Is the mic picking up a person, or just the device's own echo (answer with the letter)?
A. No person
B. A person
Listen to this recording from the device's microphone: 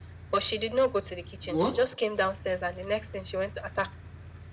B